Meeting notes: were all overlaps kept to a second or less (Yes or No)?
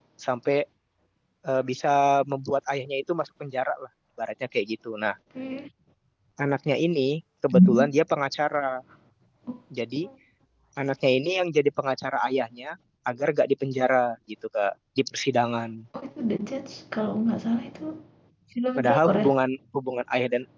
Yes